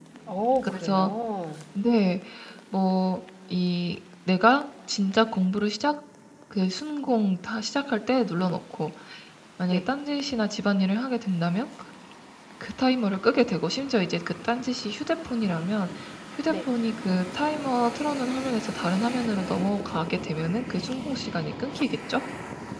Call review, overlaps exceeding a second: none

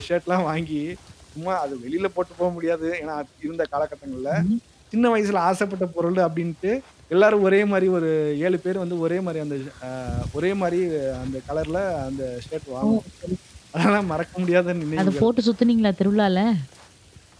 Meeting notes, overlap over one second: none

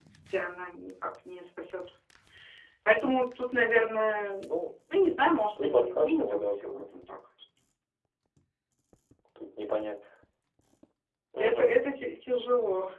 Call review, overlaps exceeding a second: present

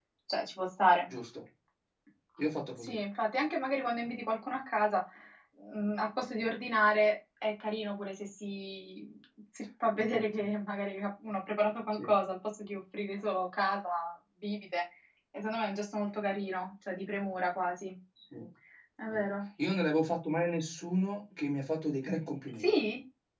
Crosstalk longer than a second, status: none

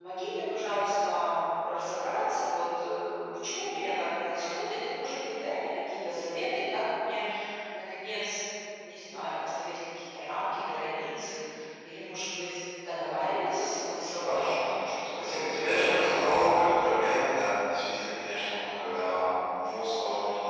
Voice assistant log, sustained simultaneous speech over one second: present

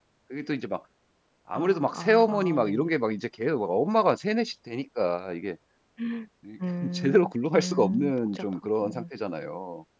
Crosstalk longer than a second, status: present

